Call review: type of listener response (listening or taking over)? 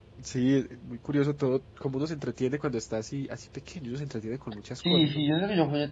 taking over